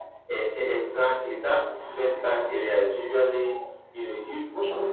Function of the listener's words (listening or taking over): listening